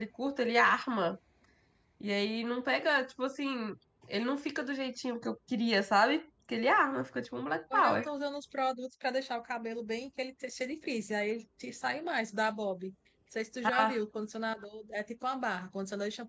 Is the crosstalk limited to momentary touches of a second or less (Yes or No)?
Yes